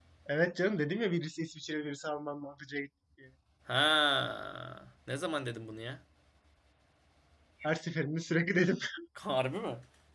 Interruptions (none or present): none